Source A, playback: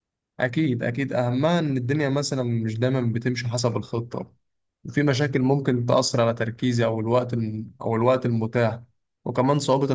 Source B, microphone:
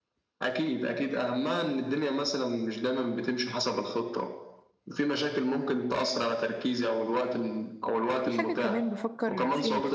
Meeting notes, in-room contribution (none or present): present